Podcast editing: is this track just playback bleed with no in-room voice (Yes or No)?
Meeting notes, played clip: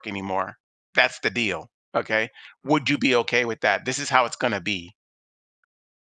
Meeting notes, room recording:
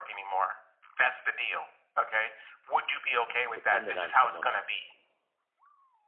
No